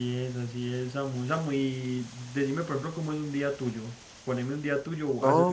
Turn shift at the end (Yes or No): Yes